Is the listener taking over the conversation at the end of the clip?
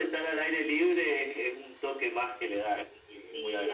Yes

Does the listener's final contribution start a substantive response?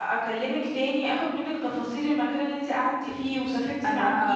Yes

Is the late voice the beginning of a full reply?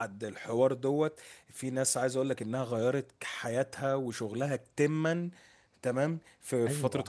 No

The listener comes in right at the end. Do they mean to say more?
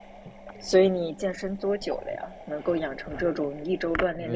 Yes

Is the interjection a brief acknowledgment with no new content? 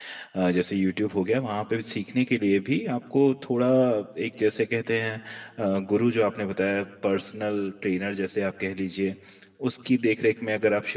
Yes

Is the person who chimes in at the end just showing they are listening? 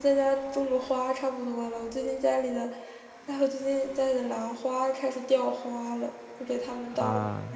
Yes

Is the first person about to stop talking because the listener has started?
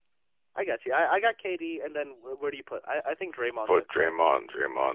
Yes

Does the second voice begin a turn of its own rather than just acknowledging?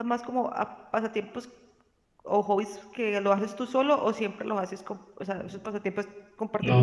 Yes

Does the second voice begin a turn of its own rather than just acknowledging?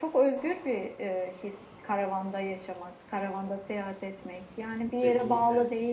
No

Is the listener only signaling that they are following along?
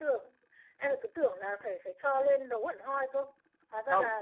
No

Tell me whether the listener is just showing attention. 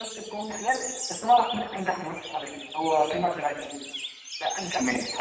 No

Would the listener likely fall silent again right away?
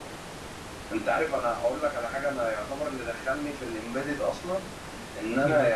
Yes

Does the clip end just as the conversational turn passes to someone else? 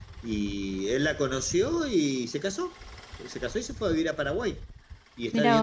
No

